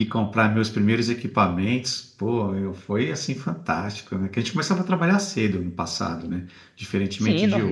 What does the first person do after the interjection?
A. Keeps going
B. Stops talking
B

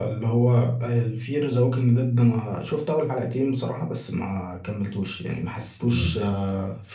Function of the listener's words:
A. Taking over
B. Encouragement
B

